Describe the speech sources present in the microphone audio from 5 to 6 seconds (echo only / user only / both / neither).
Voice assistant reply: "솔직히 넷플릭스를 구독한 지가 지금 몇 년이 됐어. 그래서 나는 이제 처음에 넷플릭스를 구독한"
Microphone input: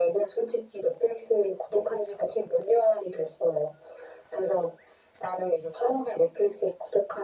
echo only